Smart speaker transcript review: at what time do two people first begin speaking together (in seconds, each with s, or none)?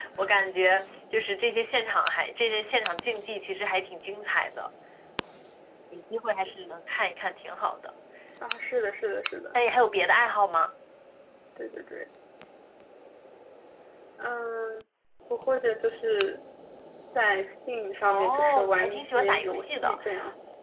18.1 s